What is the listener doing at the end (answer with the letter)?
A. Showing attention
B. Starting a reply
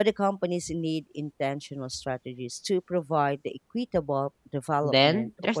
B